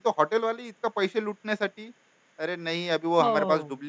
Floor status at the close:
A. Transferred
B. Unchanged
B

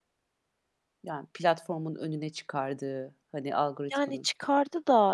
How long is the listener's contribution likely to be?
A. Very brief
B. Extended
B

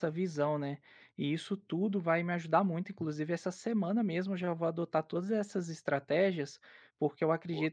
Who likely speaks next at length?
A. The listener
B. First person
B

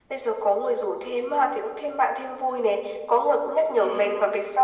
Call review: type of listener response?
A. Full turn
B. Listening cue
B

